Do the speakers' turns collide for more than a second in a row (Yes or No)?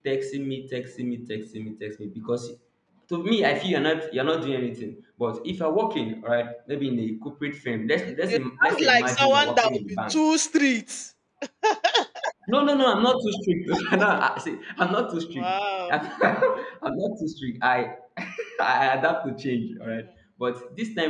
Yes